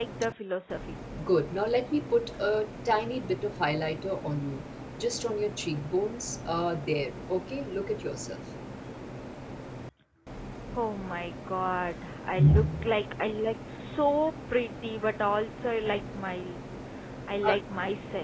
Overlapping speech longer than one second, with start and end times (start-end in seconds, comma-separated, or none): none